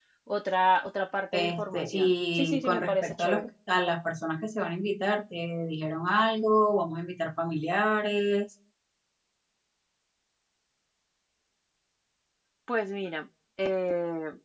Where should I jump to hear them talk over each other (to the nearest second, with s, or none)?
1 s